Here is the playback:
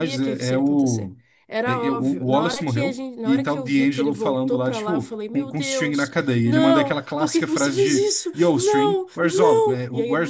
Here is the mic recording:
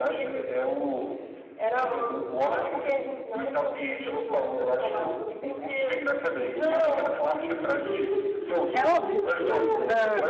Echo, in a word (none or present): present